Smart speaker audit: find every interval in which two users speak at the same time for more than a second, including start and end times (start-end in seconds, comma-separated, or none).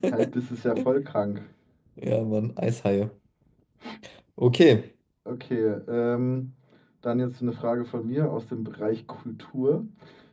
none